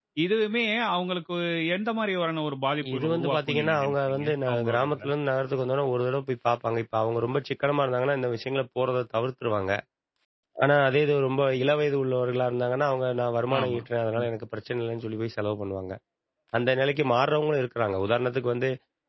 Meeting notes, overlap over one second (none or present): present